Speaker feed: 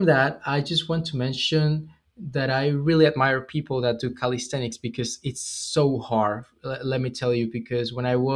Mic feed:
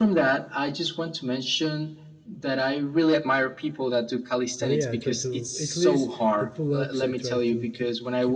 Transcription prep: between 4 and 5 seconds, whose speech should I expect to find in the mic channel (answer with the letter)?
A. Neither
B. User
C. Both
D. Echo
C